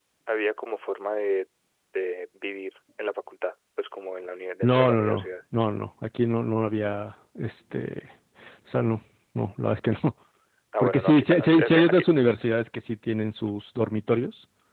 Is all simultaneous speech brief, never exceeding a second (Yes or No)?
No